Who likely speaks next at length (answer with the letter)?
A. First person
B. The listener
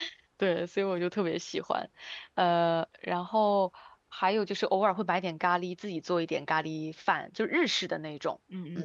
B